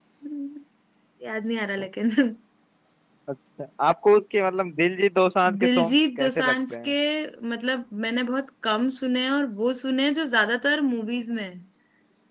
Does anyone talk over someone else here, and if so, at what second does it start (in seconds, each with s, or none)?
5.6 s